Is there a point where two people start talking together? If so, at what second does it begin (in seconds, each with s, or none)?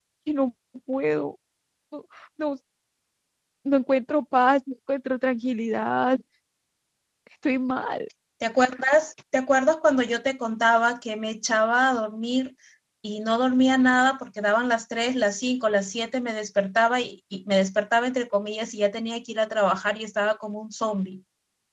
none